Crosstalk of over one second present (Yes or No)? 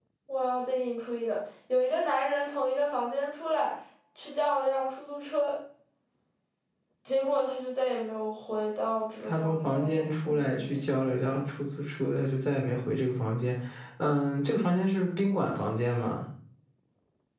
Yes